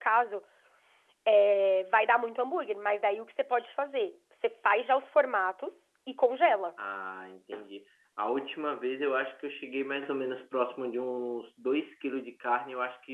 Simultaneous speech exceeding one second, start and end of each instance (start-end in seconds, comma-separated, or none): none